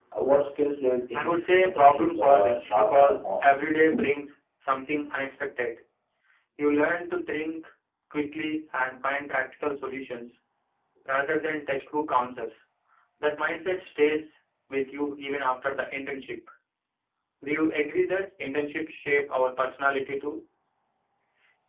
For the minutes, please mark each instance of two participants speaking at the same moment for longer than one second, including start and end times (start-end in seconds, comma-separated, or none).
1.1-3.5